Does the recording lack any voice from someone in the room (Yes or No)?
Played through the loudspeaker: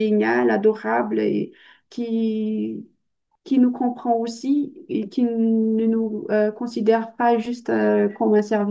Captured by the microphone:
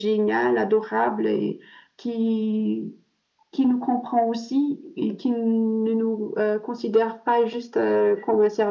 Yes